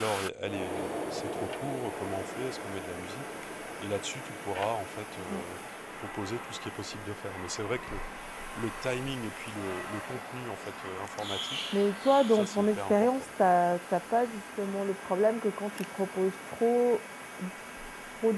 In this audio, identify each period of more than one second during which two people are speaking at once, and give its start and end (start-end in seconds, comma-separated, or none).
12.3-13.5